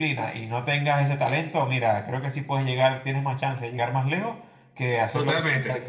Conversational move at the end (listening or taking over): taking over